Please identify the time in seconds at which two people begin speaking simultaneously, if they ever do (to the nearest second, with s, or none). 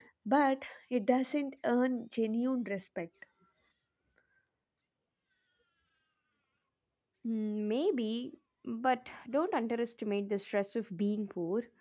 none